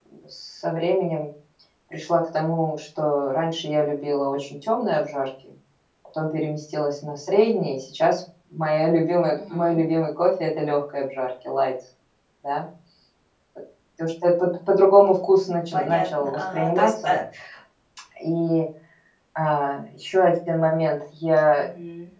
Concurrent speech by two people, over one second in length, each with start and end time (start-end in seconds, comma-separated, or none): 15.7-17.1